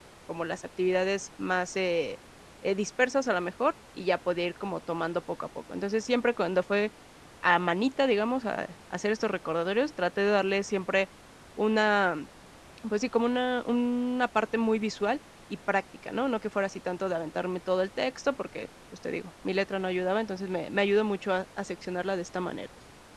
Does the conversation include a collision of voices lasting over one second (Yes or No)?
No